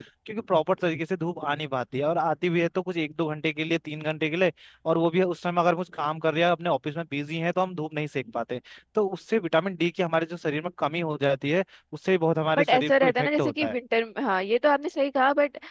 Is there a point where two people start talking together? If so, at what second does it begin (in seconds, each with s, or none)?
12.6 s